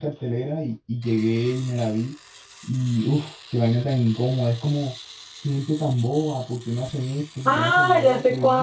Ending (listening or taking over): taking over